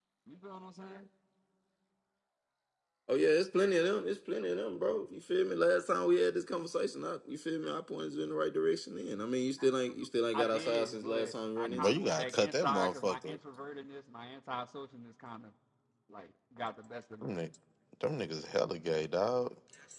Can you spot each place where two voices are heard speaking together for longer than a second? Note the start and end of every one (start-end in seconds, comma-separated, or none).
10.3-13.4